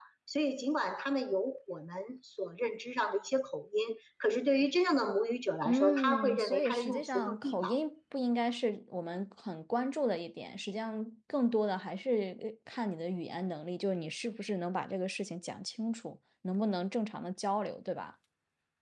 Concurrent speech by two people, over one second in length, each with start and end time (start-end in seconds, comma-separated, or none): 5.7-7.7